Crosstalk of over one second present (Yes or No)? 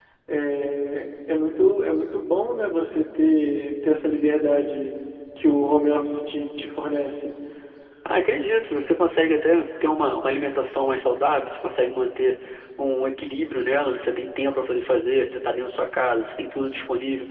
No